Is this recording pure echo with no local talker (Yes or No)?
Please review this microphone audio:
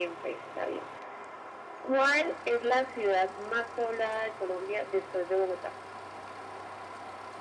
Yes